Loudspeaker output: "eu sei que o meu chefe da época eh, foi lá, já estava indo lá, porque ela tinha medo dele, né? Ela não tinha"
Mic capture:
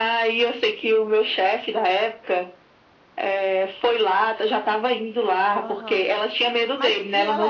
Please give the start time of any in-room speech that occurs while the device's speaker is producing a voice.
5.6 s

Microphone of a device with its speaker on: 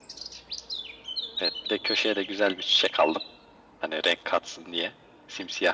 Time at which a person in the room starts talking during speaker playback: none

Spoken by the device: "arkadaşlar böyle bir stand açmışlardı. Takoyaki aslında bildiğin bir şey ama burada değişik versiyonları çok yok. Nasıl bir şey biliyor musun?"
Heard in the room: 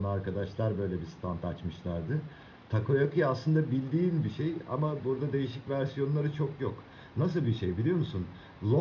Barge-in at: none

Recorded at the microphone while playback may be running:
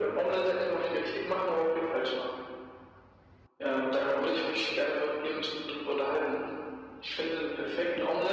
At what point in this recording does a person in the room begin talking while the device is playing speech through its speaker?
none

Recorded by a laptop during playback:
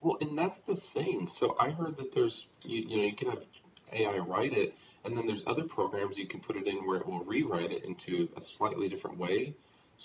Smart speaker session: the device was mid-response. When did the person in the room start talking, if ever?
none

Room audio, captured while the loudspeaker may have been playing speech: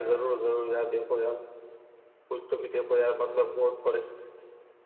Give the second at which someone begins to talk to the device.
none

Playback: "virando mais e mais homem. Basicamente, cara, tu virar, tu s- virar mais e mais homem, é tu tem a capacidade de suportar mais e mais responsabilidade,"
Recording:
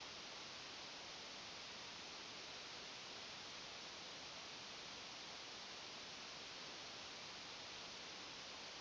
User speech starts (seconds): none

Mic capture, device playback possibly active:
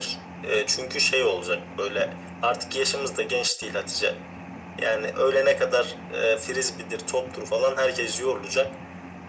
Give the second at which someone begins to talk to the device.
none

